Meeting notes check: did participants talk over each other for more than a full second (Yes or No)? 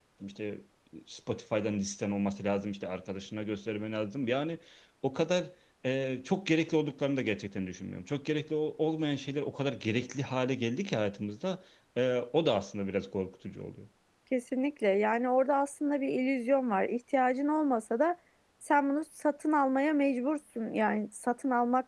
No